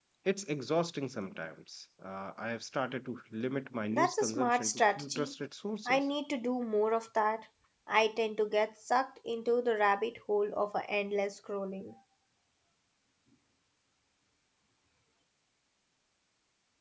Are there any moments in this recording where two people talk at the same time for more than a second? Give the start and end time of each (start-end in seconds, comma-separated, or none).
3.9-5.3